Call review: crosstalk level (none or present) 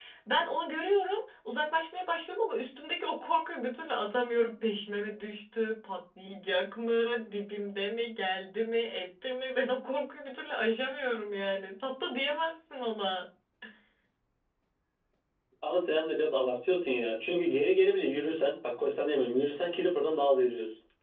none